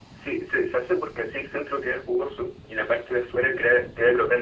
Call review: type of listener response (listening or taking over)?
listening